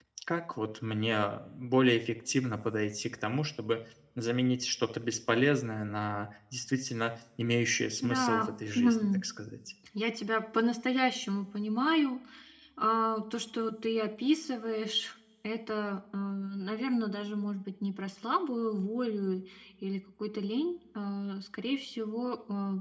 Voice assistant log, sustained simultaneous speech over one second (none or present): present